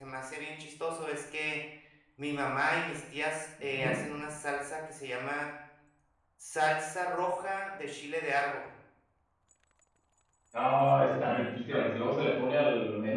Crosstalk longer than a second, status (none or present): none